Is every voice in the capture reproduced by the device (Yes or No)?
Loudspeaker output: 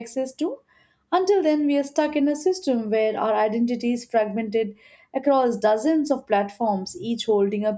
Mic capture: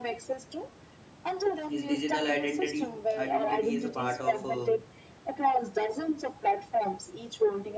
No